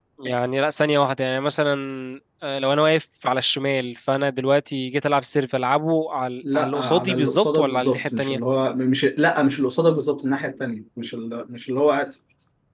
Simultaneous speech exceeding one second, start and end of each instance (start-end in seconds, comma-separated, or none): 6.5-8.4